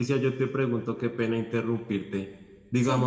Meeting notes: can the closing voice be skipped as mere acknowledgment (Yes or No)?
Yes